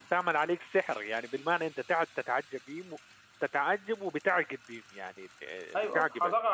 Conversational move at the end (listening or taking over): taking over